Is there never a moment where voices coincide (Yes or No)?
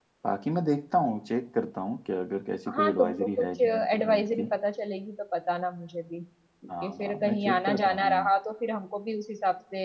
No